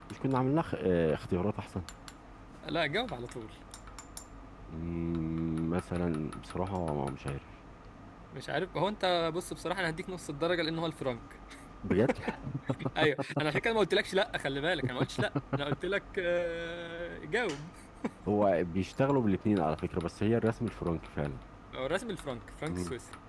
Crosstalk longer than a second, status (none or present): none